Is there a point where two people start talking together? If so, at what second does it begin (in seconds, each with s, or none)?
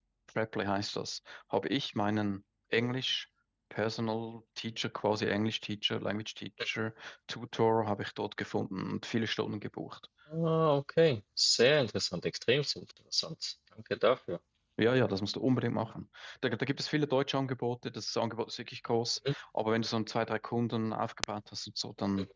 none